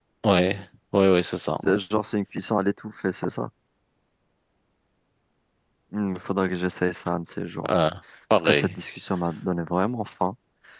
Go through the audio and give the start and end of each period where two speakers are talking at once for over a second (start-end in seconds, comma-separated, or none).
none